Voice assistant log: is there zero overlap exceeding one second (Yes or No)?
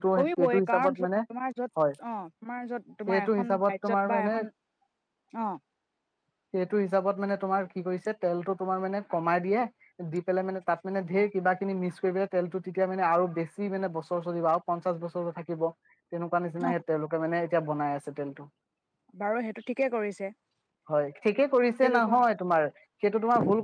No